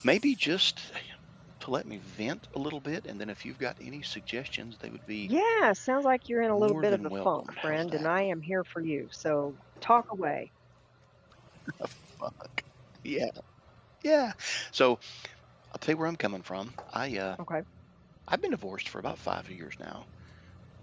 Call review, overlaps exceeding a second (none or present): present